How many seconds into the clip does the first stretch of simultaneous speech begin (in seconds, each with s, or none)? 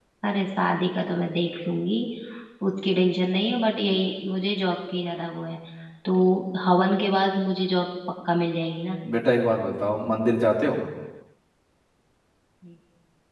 none